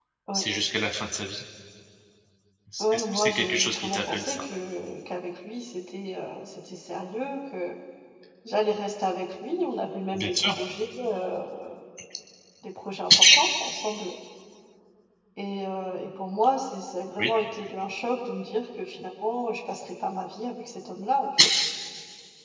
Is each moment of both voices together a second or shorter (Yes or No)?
No